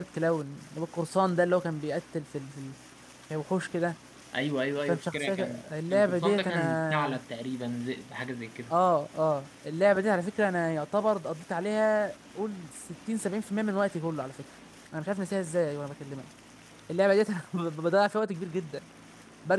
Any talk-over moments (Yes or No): Yes